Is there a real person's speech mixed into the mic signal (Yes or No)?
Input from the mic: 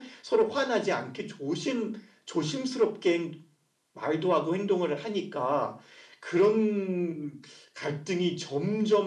No